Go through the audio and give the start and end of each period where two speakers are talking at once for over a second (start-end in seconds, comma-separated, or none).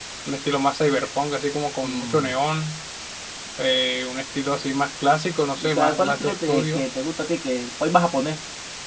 5.6-6.8